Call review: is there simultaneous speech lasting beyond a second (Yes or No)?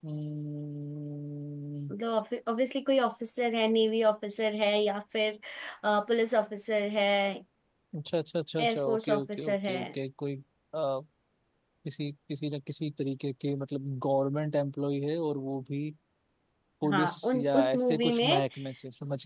Yes